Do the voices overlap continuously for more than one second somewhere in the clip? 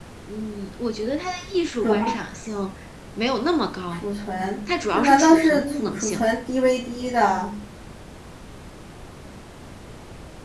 Yes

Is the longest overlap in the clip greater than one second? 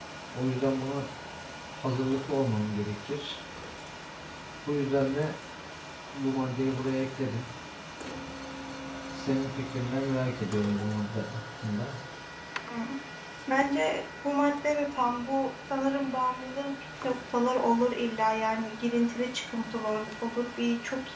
No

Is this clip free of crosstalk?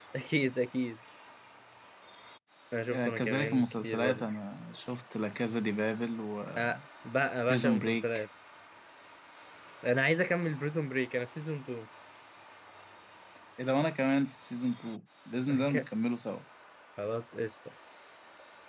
No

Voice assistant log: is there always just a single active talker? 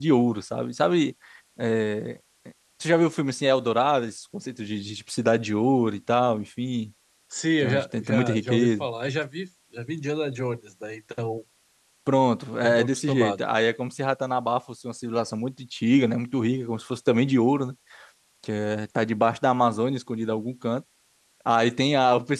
No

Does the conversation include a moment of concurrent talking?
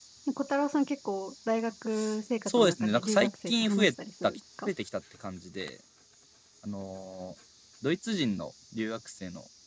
Yes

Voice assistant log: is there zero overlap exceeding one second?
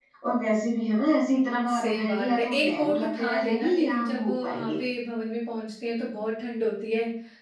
No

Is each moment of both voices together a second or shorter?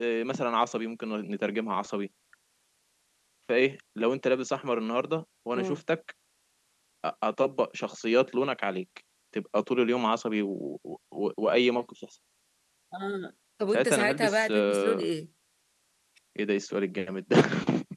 No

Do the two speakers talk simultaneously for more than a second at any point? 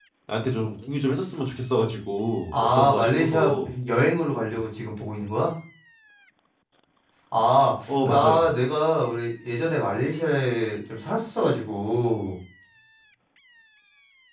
Yes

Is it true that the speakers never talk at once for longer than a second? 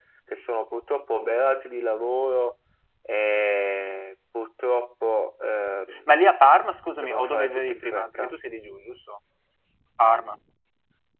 No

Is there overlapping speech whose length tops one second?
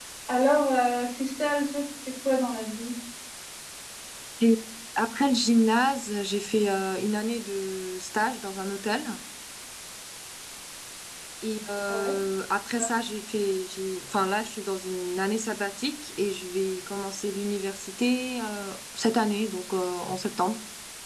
No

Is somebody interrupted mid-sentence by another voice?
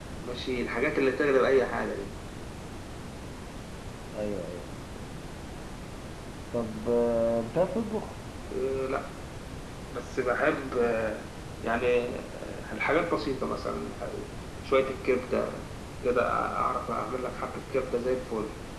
No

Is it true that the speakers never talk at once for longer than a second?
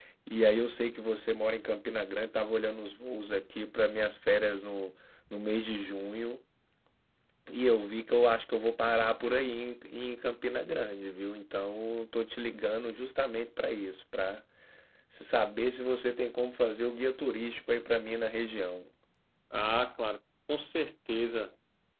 Yes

